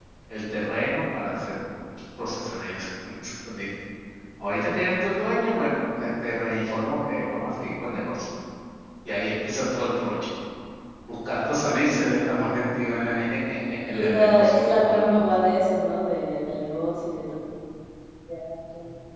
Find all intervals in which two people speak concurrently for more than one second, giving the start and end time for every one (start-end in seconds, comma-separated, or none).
13.9-15.2